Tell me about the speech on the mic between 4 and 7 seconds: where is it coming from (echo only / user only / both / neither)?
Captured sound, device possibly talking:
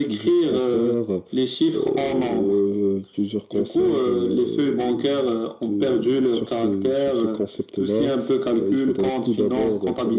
echo only